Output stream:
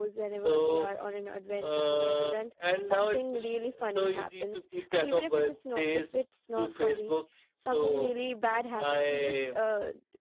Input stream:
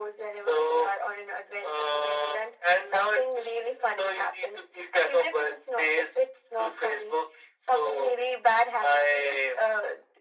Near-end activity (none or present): none